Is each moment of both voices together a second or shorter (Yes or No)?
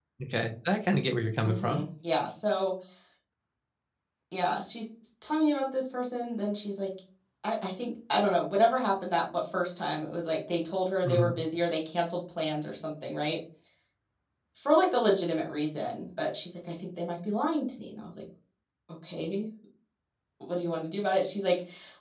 Yes